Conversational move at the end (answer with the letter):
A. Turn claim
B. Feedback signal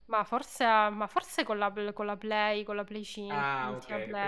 A